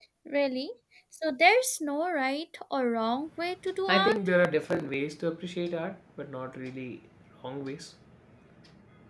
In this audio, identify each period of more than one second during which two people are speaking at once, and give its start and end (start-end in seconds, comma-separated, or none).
none